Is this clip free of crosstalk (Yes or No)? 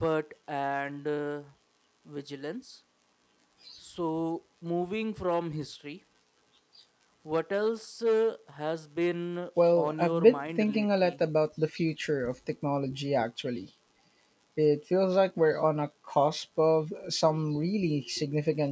No